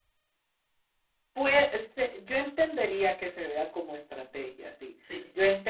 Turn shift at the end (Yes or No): No